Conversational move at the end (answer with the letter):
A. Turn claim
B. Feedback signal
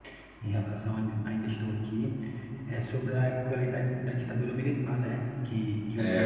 B